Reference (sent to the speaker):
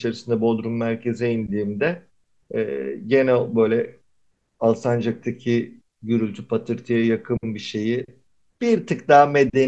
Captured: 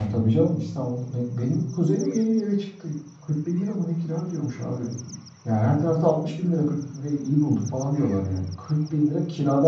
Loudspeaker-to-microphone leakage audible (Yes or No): No